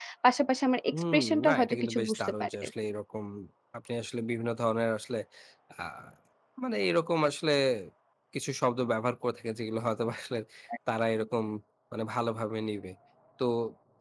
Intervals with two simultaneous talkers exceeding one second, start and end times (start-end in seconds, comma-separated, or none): 0.9-2.7